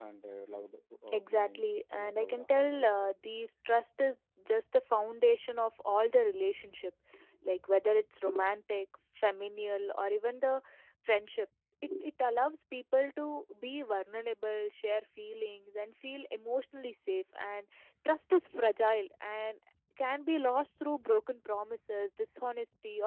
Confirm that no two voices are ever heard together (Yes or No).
No